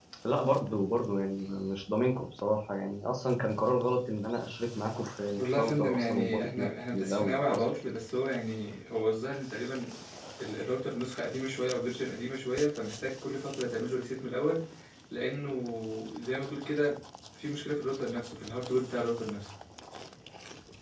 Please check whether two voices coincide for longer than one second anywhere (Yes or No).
Yes